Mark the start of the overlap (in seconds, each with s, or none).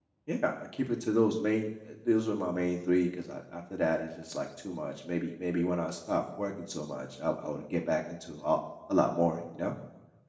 none